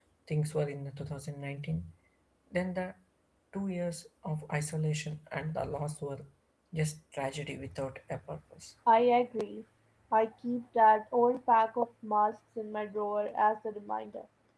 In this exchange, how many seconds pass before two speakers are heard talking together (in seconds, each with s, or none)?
none